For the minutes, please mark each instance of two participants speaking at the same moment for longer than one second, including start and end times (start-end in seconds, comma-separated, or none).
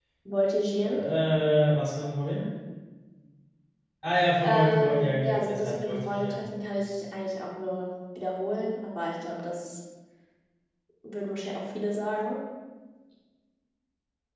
4.4-6.5